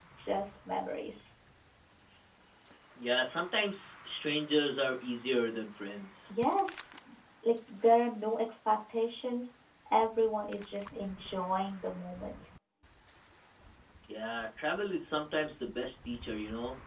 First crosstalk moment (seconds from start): none

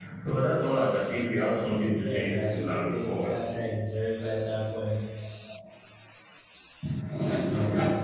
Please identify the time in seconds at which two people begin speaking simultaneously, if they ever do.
1.9 s

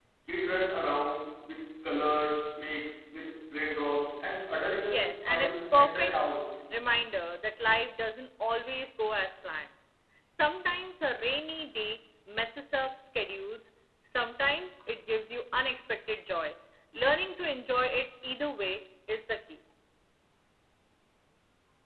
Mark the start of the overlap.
4.8 s

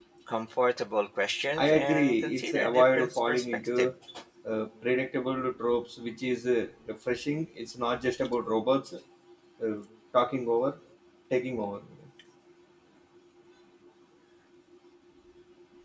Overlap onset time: 1.6 s

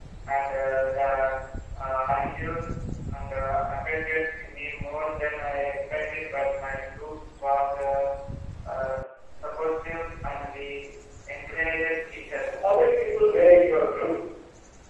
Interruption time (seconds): none

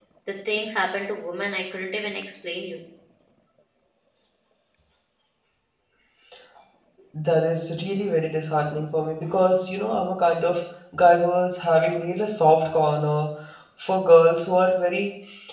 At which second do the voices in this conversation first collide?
none

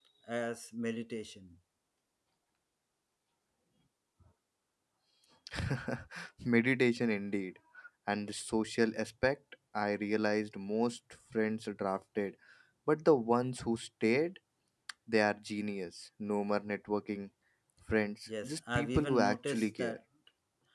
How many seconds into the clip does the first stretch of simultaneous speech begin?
18.4 s

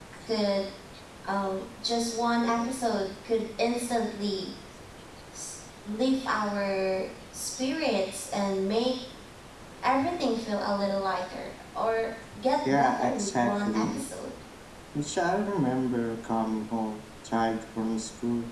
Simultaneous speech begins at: 12.7 s

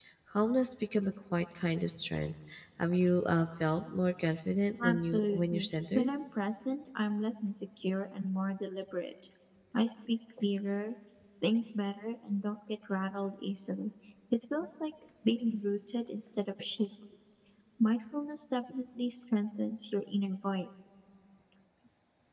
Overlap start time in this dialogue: 4.8 s

